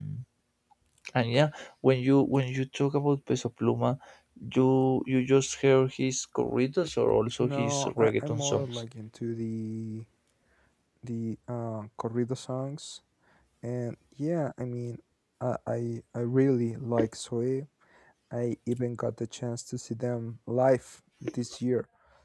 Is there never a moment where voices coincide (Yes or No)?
No